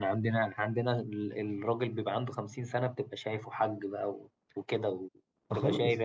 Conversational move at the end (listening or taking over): taking over